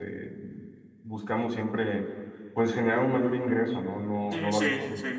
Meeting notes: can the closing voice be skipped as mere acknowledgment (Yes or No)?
No